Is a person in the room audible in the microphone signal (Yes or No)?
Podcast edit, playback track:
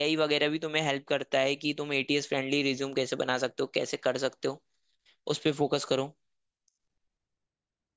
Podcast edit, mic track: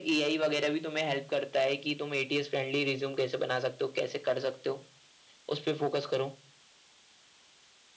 No